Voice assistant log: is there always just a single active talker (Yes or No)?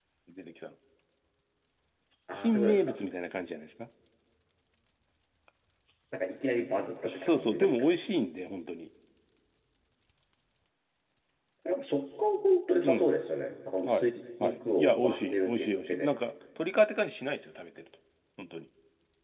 No